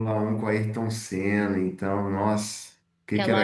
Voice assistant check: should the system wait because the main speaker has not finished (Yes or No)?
No